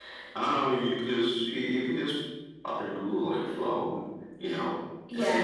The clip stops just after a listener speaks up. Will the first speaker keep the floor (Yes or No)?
No